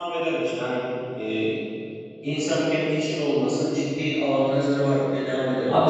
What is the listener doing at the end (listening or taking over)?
taking over